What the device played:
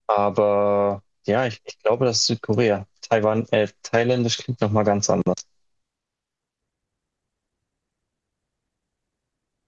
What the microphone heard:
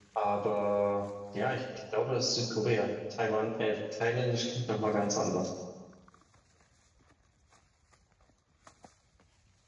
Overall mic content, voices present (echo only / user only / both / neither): echo only